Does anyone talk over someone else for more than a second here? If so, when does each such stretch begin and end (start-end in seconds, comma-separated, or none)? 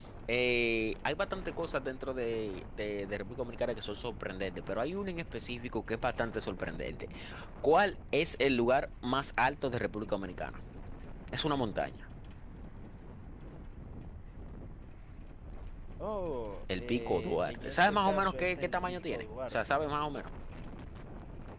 16.8-19.6